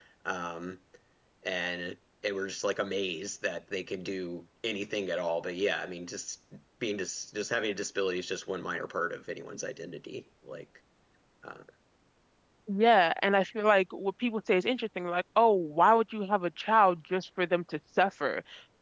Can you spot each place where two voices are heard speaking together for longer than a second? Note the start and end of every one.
none

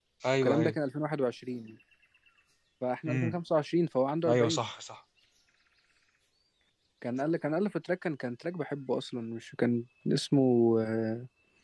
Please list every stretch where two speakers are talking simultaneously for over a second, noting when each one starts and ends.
none

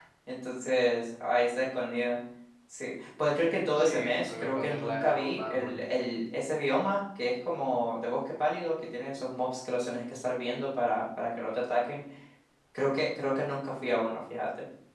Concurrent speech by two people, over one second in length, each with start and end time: 3.7-5.8

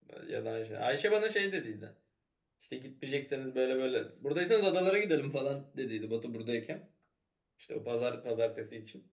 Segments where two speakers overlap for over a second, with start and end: none

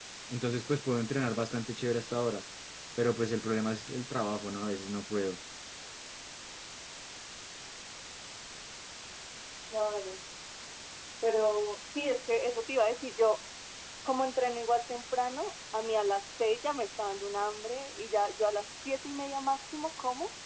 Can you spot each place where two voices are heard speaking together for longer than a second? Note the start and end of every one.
none

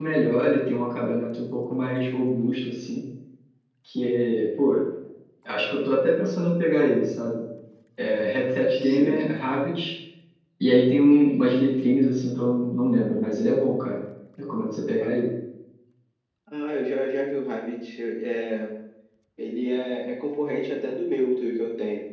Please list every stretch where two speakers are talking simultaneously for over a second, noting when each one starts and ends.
none

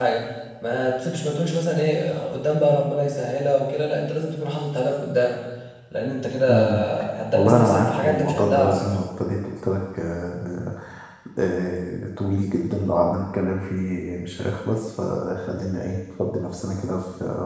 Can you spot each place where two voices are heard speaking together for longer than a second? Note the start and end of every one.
7.3-8.9

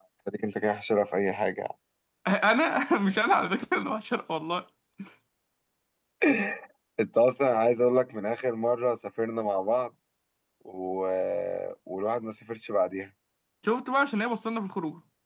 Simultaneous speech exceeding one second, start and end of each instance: none

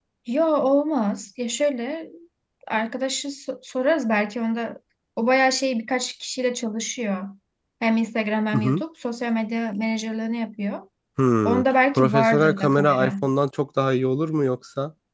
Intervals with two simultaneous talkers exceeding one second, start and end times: 11.4-13.1

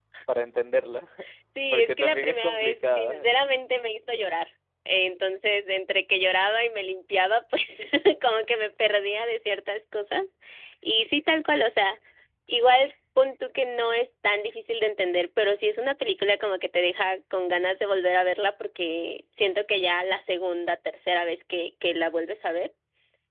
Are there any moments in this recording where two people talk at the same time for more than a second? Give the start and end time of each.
1.7-3.3

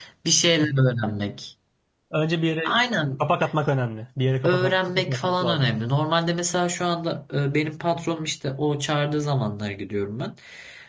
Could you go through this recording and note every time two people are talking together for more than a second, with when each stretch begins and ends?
4.4-5.7

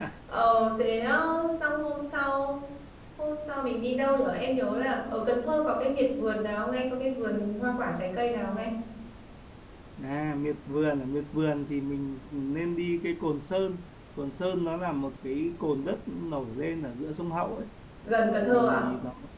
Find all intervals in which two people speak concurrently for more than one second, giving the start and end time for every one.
none

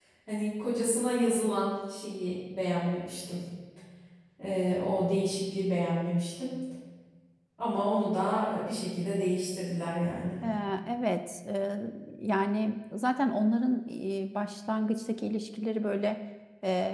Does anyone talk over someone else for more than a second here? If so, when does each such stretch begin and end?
none

